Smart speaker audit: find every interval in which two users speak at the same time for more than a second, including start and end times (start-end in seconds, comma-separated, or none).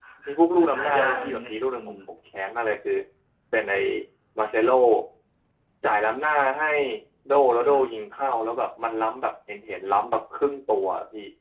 0.6-2.0